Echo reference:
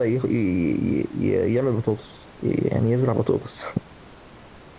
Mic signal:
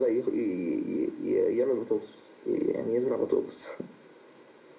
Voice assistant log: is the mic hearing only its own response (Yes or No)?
Yes